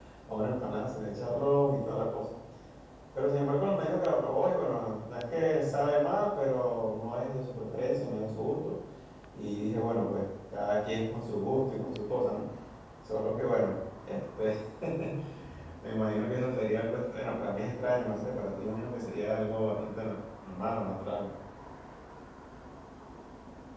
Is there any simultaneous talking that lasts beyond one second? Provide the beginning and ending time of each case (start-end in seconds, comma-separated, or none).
none